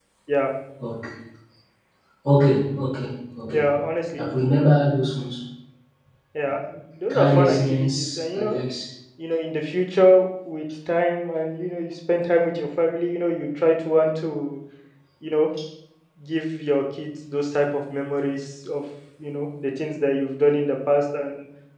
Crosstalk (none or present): present